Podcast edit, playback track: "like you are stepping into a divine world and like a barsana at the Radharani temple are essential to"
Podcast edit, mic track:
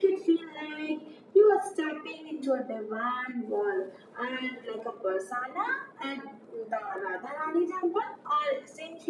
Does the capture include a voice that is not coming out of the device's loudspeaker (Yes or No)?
No